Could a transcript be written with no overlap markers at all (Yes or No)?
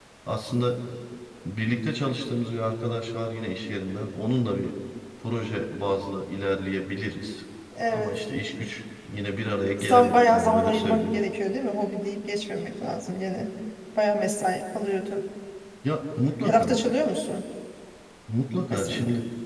No